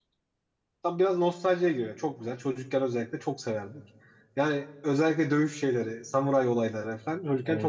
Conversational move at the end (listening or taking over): listening